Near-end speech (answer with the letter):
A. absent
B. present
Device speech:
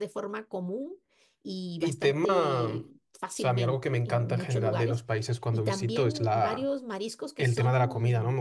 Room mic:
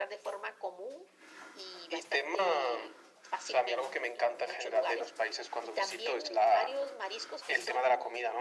A